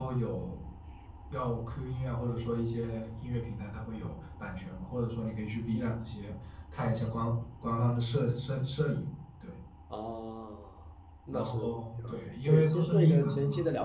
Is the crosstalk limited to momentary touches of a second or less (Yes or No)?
No